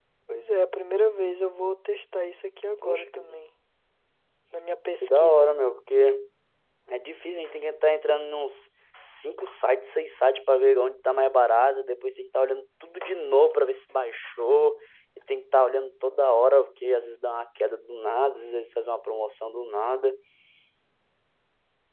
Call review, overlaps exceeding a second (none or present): none